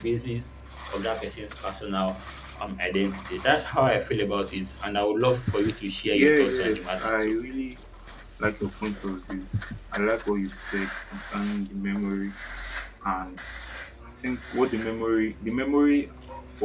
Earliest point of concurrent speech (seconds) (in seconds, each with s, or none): 6.1 s